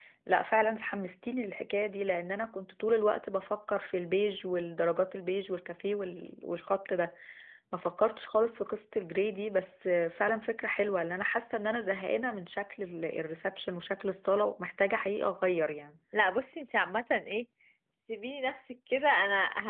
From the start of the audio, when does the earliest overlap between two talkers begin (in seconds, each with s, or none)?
none